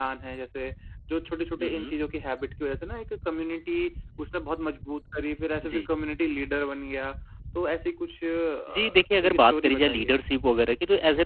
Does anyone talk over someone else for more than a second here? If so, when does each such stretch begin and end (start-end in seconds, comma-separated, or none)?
8.7-10.1